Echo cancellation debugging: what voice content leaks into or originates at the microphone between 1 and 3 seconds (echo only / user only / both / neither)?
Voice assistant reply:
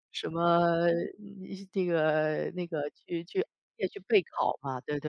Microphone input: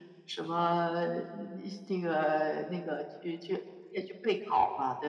echo only